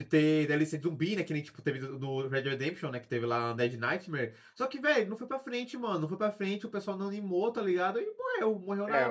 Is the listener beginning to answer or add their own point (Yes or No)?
Yes